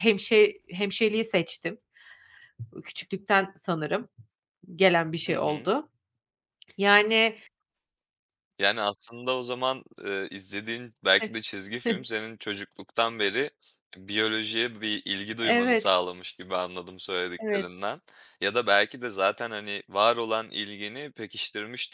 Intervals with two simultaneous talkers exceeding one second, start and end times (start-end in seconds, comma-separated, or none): none